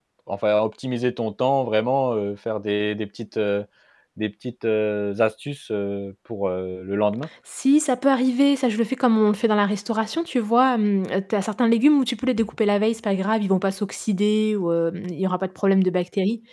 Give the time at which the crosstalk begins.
none

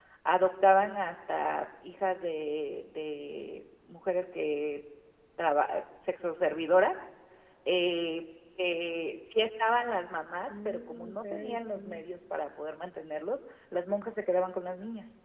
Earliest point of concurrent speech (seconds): 10.5 s

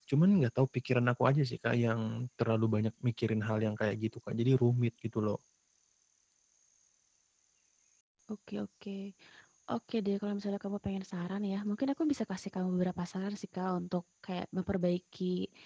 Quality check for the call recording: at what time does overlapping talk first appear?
none

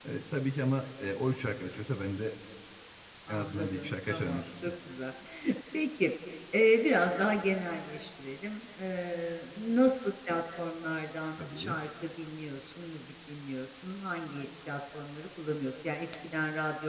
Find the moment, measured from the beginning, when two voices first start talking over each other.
3.3 s

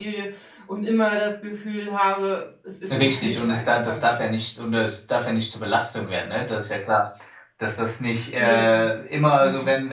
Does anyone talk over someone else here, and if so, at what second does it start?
2.9 s

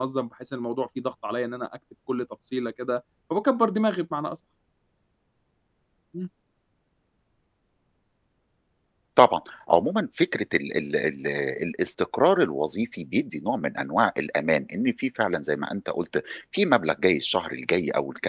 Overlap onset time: none

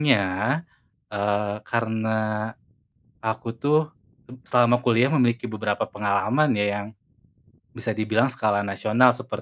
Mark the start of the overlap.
none

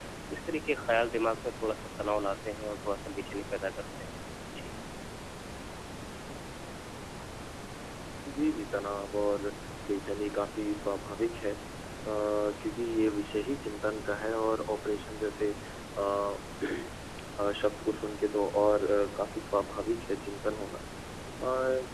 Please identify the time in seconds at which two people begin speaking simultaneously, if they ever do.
none

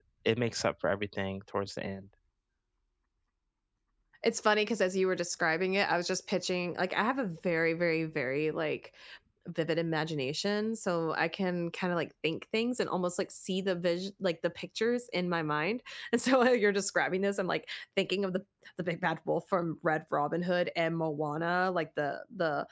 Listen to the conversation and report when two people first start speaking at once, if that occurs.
none

